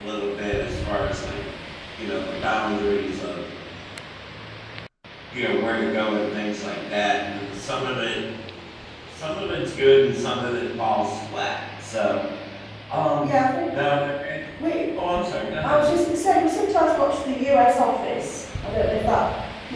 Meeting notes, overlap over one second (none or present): none